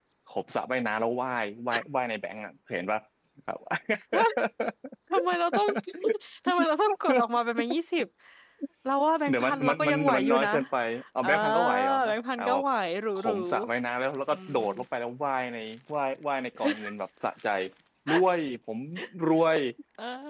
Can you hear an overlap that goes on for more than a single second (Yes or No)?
Yes